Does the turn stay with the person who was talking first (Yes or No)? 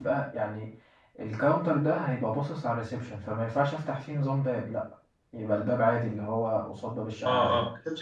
No